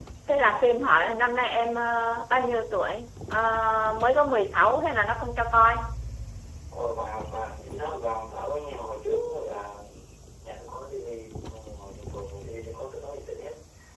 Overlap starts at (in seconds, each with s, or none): none